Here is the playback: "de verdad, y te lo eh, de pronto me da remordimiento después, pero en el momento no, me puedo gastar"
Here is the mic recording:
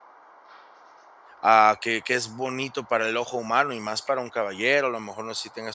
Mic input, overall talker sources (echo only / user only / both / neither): user only